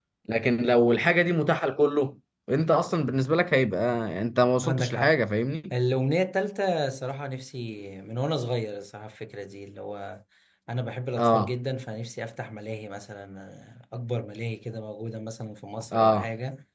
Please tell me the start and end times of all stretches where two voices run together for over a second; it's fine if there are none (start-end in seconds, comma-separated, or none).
none